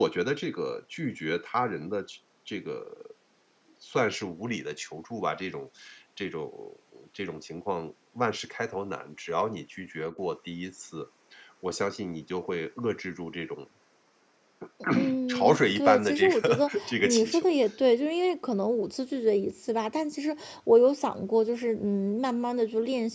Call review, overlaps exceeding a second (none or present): present